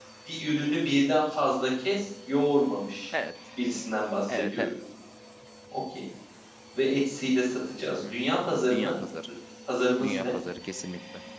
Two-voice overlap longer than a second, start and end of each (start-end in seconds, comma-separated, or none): none